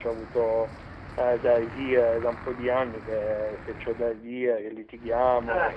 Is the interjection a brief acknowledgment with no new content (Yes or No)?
No